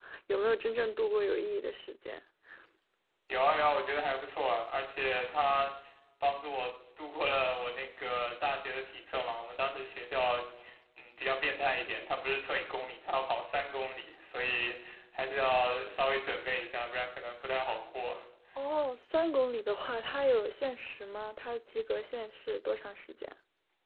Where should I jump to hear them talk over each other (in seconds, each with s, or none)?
none